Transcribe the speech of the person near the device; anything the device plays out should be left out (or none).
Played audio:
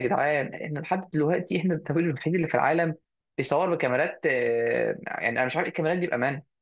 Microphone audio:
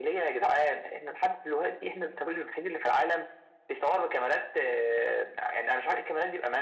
none